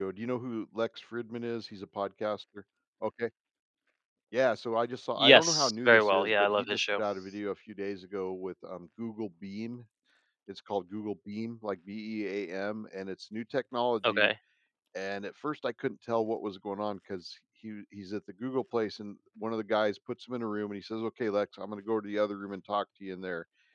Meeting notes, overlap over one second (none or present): present